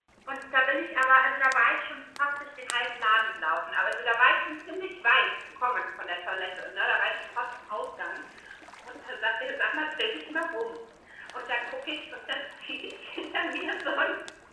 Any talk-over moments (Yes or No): No